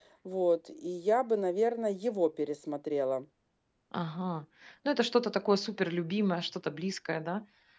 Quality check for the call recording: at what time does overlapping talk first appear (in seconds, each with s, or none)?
none